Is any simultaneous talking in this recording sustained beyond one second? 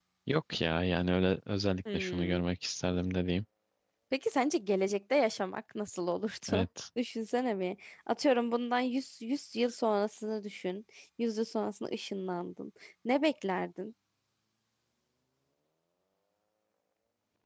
No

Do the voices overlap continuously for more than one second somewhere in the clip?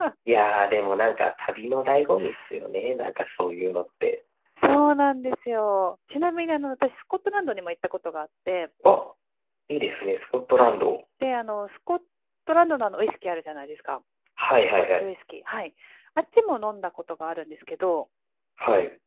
No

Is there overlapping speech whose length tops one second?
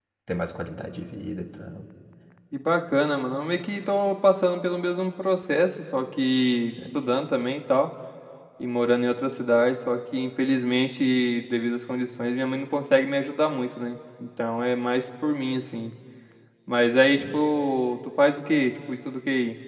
No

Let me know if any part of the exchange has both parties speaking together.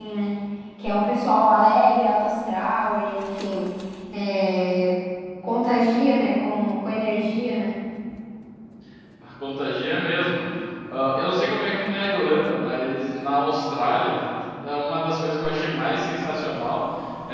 No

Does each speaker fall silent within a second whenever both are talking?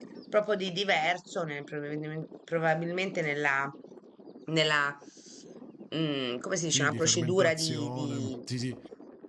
No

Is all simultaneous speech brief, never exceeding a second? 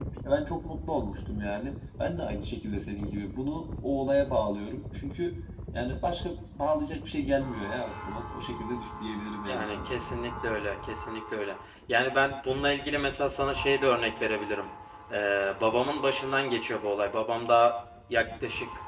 Yes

